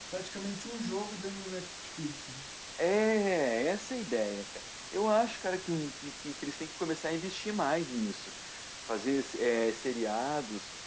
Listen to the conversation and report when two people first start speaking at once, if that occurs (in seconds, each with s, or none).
none